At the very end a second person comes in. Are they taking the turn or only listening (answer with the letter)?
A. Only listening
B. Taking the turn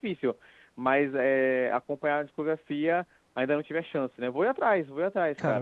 B